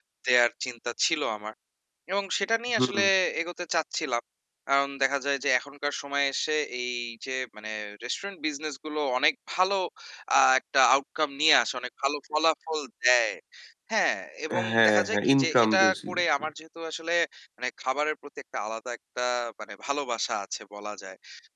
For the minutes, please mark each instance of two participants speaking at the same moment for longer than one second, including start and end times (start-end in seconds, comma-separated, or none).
14.7-16.4